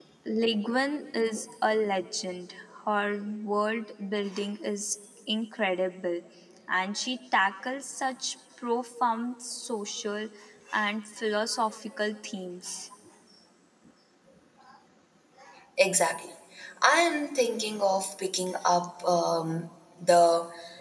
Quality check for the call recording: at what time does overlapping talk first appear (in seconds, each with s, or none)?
none